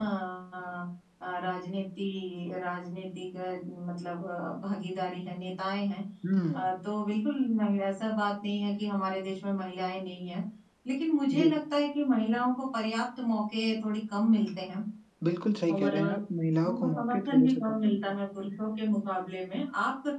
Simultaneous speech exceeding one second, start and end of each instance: 16.6-18.0

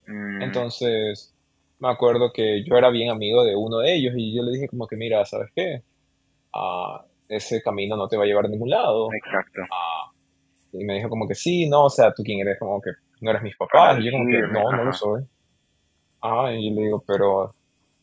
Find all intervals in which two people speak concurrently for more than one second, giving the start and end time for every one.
13.7-15.0

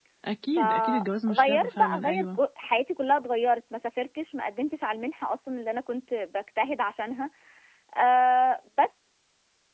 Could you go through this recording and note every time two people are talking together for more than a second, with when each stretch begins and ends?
0.6-2.4

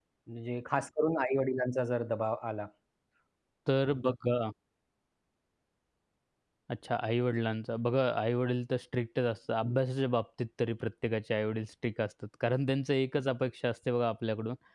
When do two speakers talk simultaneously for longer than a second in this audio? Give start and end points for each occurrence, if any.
none

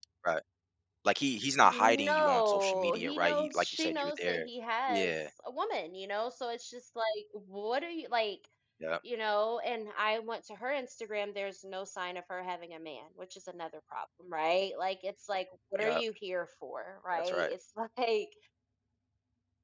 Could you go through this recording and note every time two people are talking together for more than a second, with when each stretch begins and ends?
1.6-4.5

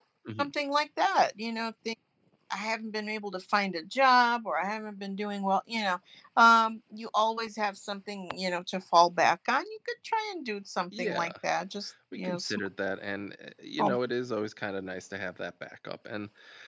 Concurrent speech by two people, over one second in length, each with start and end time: none

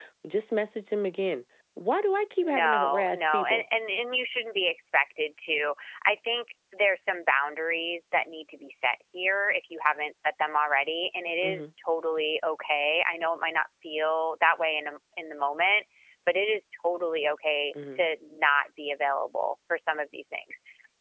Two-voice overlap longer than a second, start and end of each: 2.4-3.6

